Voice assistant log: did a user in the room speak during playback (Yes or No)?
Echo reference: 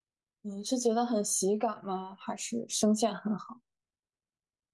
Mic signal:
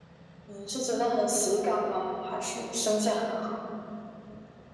No